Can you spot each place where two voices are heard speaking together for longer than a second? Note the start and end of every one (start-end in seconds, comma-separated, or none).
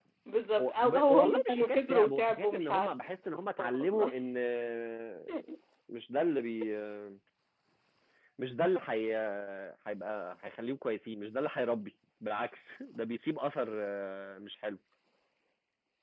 0.6-2.9